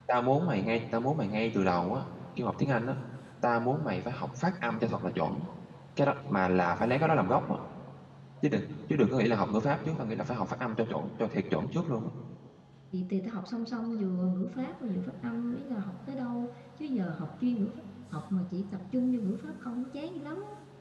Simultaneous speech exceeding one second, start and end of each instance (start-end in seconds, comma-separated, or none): none